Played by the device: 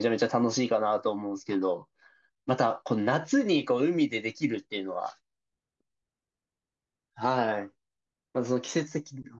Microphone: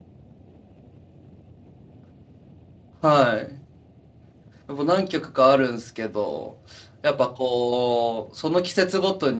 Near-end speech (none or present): present